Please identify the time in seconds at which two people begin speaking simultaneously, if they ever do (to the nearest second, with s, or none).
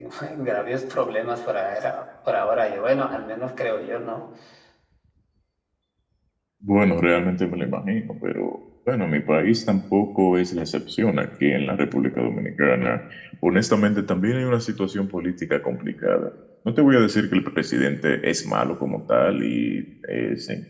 none